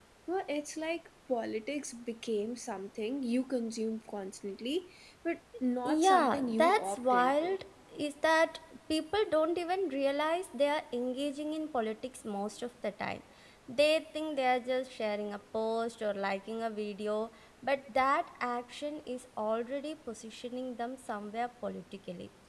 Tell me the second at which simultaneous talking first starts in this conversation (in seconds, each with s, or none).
5.8 s